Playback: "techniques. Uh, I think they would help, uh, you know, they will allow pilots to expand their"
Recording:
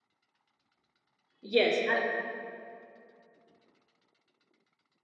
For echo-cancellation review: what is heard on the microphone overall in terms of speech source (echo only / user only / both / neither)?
user only